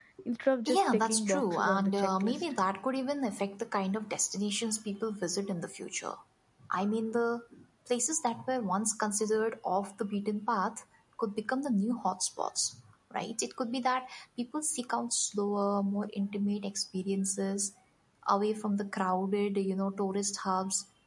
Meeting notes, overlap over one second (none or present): present